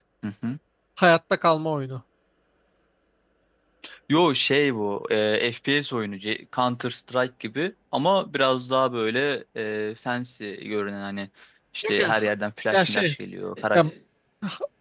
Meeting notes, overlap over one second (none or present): none